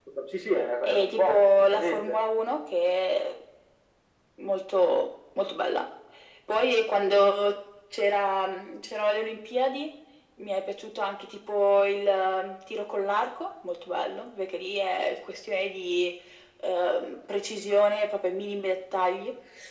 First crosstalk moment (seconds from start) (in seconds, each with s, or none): 0.8 s